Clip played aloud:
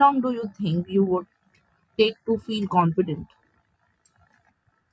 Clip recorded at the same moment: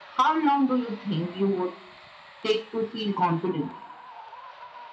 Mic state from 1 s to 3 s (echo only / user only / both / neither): echo only